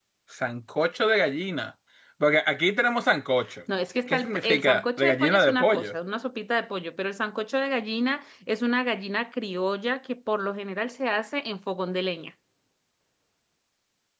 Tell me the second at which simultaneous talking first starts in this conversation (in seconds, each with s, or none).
4.1 s